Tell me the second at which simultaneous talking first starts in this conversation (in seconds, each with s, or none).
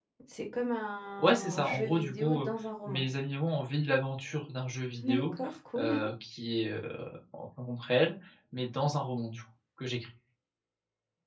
1.2 s